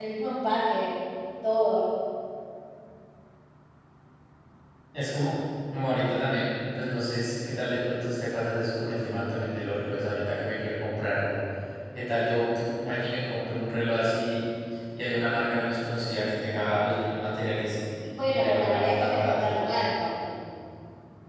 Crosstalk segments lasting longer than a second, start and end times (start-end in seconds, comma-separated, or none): 18.2-19.5